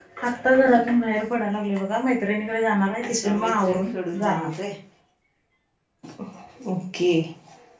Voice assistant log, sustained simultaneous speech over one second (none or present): present